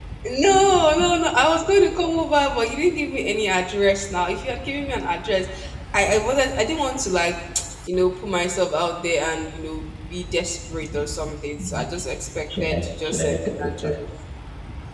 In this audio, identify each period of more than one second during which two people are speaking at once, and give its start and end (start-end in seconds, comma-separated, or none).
12.6-13.9